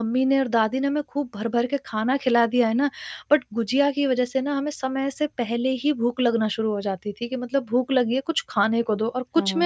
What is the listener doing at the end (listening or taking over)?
taking over